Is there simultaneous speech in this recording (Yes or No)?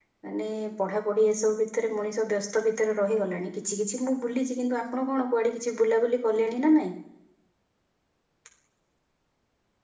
No